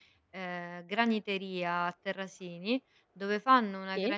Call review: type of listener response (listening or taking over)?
listening